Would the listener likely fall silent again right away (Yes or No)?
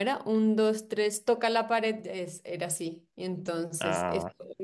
Yes